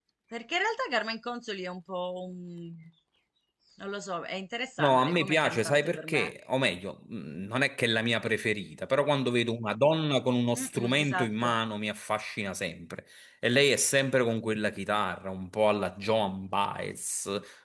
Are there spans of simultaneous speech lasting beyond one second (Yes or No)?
Yes